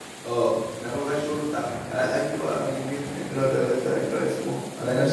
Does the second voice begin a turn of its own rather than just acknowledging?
Yes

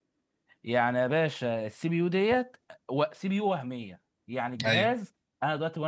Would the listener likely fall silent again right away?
Yes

